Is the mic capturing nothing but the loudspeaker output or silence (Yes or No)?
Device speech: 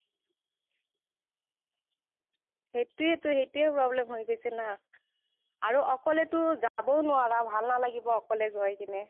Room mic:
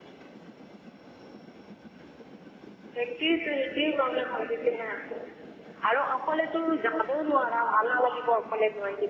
Yes